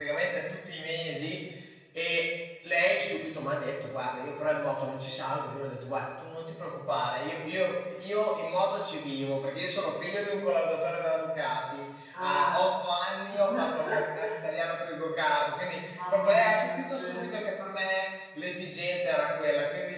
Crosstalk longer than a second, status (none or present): present